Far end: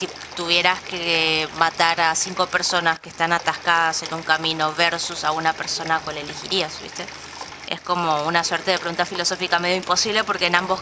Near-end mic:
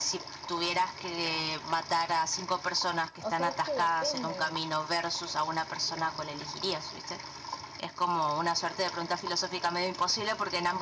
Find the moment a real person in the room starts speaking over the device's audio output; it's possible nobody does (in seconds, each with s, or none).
3.2 s